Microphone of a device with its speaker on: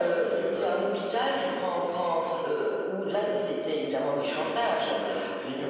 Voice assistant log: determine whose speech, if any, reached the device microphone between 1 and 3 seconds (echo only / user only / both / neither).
echo only